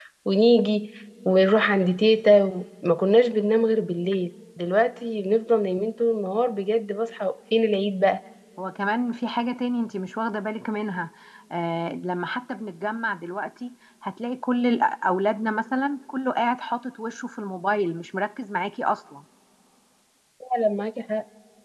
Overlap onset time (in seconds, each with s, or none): none